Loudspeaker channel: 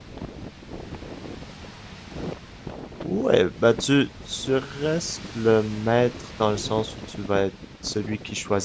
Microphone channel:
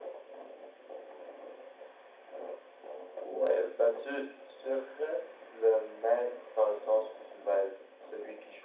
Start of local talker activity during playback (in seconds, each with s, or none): none